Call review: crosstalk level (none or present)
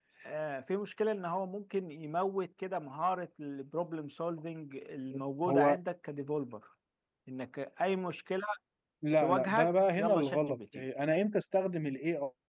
present